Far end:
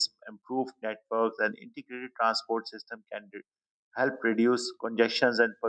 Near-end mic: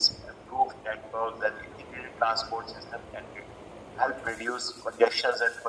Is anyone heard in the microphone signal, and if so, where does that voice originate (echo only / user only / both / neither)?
echo only